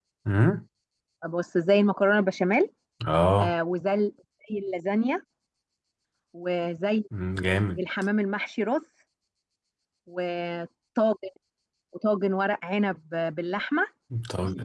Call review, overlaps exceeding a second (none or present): none